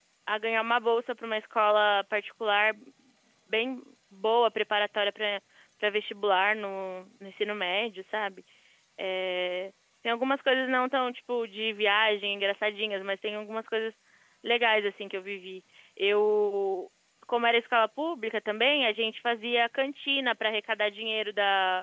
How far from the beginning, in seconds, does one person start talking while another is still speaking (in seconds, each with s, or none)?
none